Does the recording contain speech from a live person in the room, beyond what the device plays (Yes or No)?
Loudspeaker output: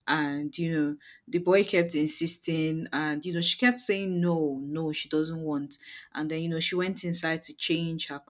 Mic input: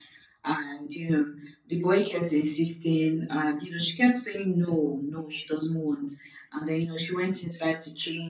No